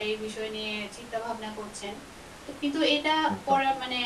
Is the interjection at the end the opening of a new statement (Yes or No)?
No